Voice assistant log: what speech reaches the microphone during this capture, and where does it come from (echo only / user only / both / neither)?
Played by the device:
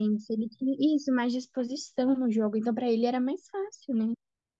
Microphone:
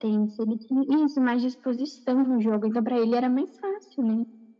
echo only